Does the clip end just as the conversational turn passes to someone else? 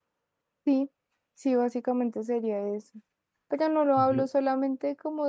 No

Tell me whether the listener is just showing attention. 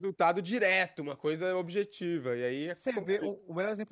No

